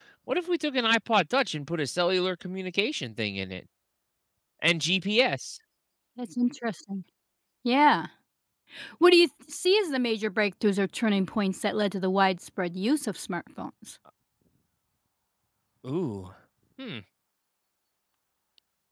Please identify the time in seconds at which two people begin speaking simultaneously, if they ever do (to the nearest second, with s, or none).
none